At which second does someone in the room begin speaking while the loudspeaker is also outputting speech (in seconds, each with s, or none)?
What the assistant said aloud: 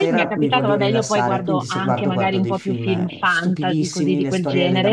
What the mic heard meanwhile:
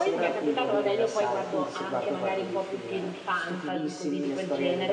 none